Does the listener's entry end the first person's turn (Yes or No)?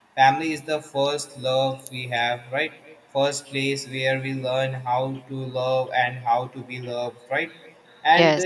No